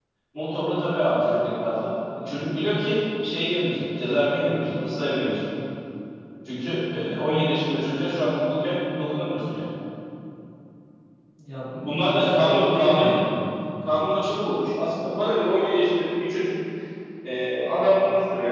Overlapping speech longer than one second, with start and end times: 11.7-13.1

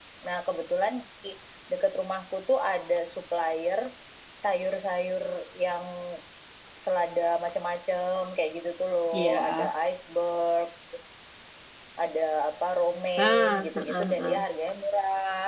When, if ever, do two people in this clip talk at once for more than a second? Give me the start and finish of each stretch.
13.2-14.4

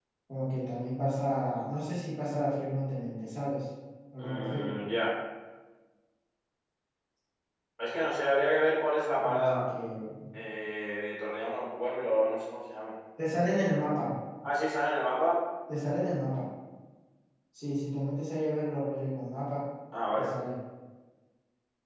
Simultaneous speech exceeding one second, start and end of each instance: none

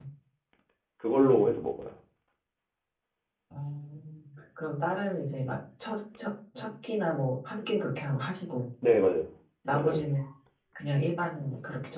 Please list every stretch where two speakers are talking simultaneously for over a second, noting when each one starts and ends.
none

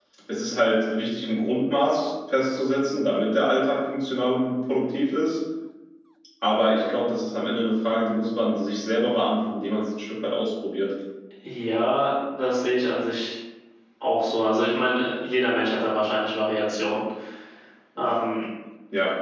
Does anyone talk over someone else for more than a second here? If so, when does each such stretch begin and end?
none

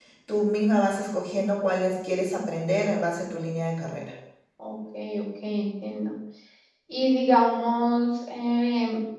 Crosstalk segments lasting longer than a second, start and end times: none

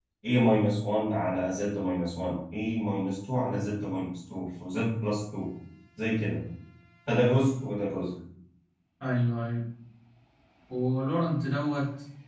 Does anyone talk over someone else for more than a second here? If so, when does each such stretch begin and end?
none

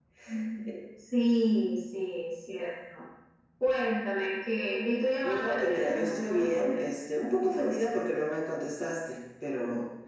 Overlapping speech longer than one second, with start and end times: 5.2-6.8

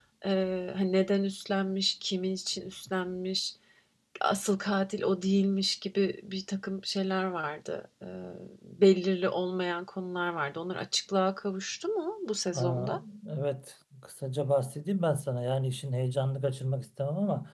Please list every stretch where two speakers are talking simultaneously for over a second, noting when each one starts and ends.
none

